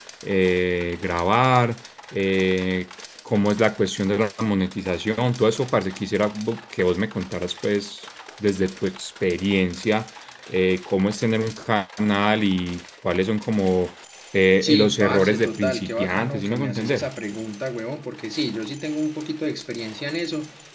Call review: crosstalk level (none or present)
present